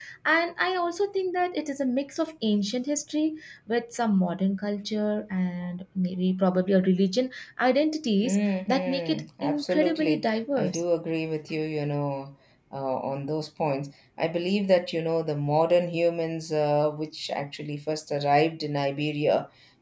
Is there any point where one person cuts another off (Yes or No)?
Yes